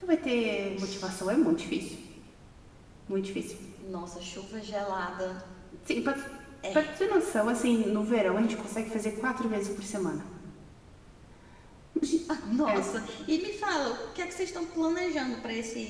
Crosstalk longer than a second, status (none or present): none